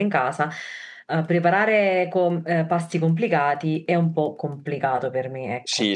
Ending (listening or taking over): taking over